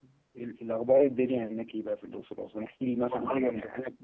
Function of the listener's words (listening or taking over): listening